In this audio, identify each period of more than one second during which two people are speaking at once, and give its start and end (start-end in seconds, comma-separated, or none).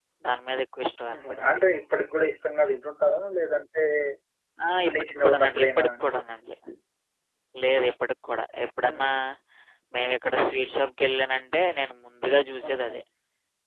4.9-6.1